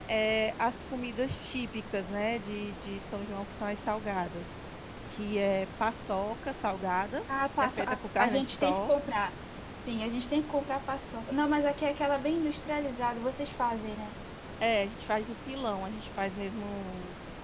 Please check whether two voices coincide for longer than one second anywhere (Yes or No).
Yes